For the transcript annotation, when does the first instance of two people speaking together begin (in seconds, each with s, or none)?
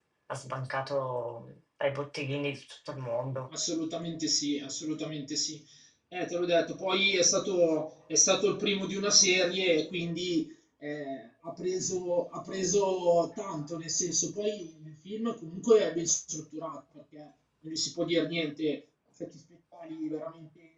none